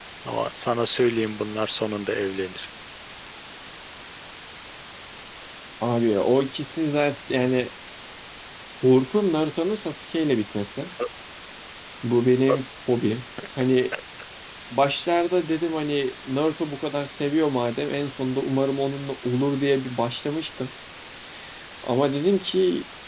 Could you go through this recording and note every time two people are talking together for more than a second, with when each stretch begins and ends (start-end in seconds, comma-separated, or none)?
none